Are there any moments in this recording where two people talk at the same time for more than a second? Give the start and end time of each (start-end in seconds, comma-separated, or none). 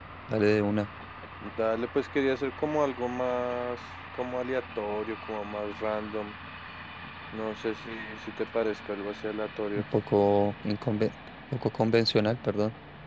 none